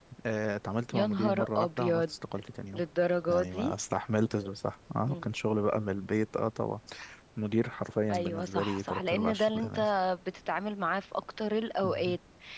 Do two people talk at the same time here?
Yes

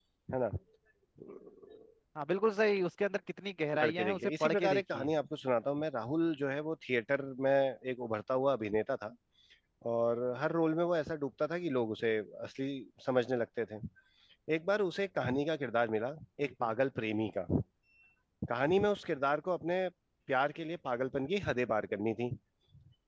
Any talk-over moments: Yes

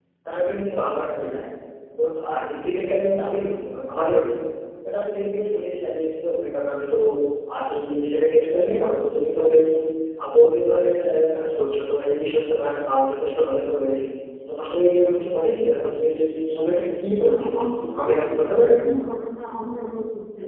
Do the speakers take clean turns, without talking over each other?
No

